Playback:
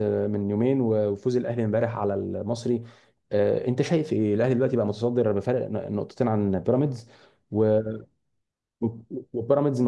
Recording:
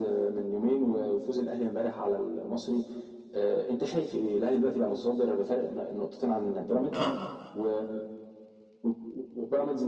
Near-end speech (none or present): present